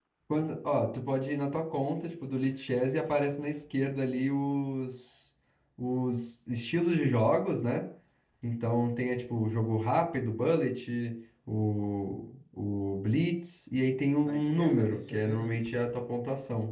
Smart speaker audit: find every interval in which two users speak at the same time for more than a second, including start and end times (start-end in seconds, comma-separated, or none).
14.2-15.7